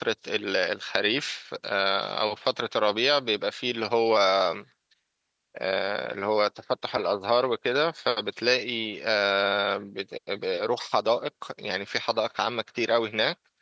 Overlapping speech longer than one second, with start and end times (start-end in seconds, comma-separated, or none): none